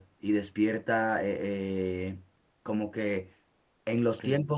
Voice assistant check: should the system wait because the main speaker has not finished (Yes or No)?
Yes